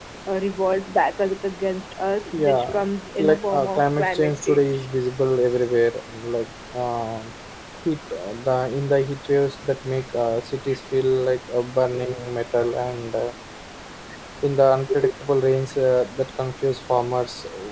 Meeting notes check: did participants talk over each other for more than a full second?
Yes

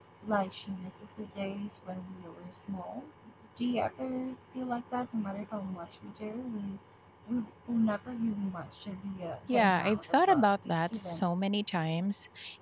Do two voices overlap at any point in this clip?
Yes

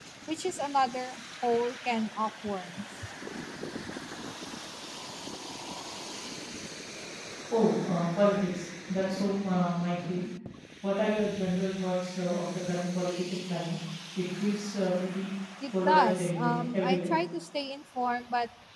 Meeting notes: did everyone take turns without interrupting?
No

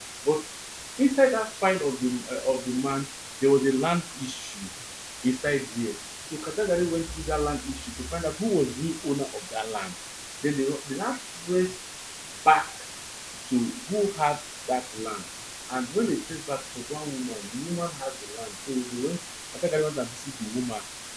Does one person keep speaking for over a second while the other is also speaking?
No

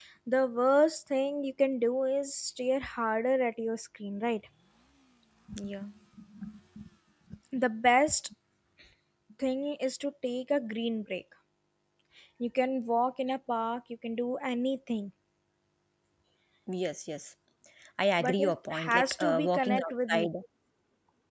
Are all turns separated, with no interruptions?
No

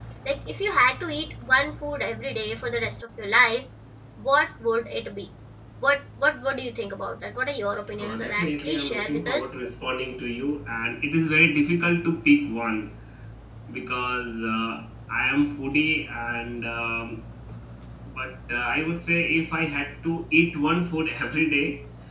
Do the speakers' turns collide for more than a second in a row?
Yes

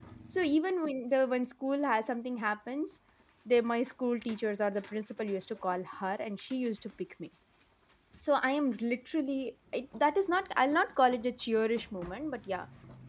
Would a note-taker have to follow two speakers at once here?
No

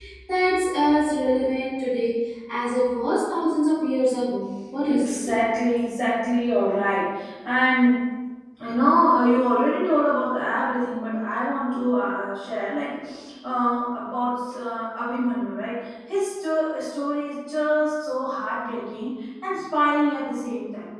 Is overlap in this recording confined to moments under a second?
Yes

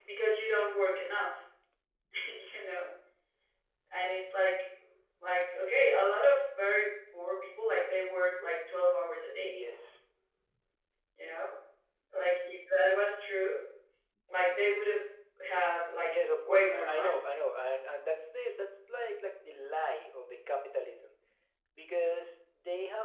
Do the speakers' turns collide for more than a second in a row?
Yes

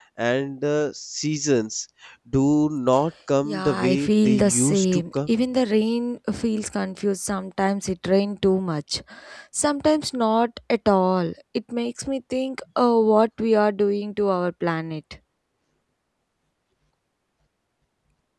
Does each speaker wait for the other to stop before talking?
No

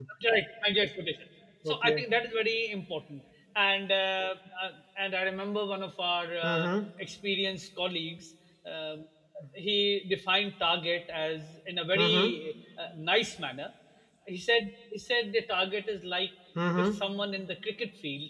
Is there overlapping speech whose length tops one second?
No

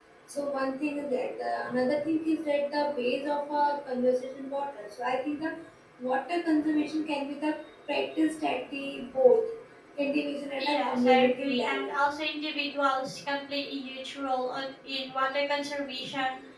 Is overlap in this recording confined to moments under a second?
No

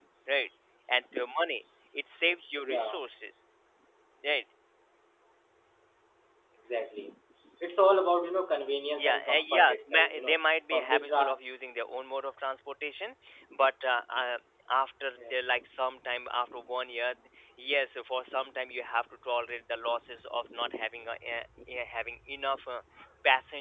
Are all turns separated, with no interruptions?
No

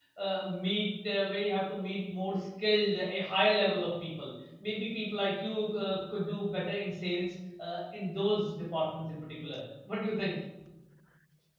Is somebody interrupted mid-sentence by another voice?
No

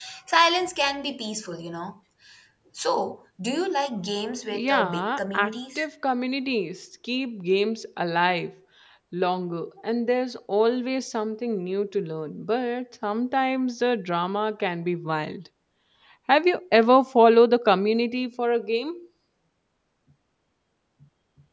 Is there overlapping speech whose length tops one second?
Yes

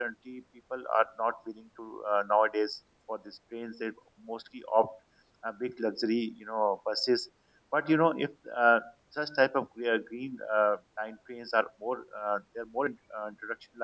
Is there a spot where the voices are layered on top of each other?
No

